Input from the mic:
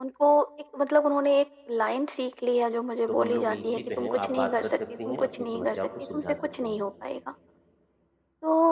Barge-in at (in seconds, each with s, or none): 3.1 s